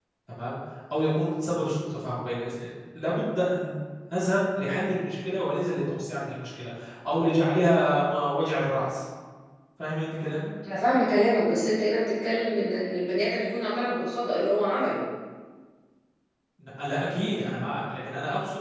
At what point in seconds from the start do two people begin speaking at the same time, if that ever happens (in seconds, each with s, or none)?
none